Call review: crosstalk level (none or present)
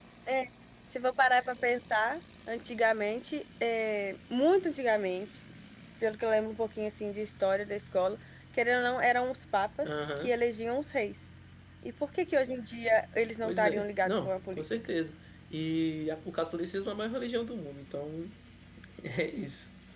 present